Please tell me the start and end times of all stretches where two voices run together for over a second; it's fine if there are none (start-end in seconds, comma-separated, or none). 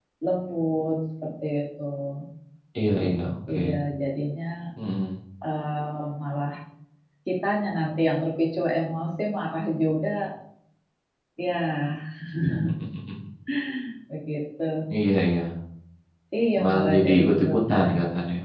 16.6-17.9